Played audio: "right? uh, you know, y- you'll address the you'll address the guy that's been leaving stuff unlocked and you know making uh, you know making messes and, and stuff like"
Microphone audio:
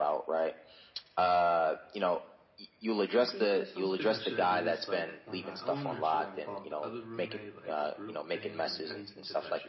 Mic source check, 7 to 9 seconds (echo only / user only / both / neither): both